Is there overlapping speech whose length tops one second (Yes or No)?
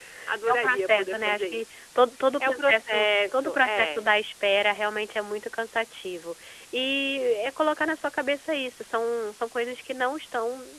Yes